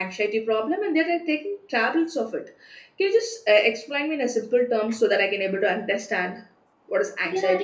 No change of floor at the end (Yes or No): No